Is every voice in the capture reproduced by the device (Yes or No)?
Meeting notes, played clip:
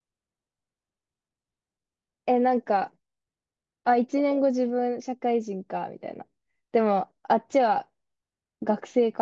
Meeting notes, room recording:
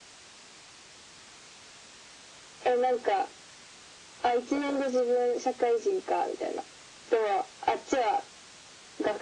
Yes